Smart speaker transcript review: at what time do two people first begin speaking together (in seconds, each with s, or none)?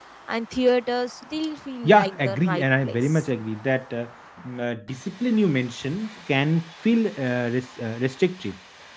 1.8 s